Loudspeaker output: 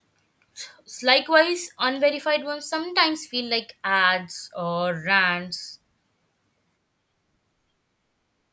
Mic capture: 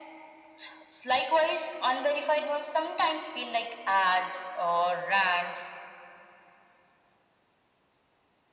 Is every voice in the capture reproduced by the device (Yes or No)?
Yes